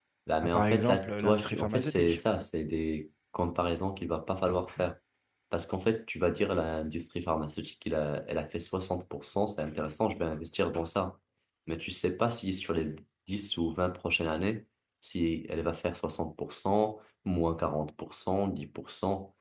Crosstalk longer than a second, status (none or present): present